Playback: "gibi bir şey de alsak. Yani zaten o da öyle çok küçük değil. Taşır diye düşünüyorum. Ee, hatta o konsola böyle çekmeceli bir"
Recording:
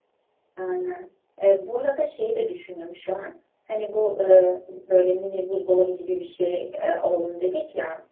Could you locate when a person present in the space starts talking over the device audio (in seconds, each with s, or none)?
0.6 s